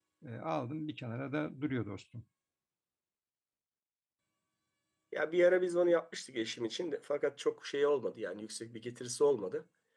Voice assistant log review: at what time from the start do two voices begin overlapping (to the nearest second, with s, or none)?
none